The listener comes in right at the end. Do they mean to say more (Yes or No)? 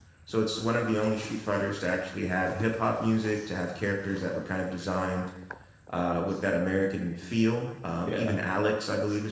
No